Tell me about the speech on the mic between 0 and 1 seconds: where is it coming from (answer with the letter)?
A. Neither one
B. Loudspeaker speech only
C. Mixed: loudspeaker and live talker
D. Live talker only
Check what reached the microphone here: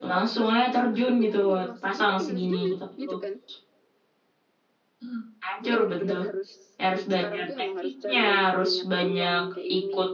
C